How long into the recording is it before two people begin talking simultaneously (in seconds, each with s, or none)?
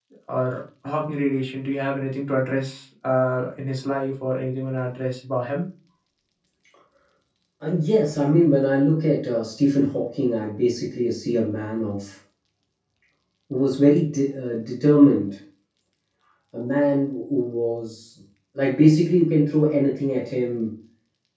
none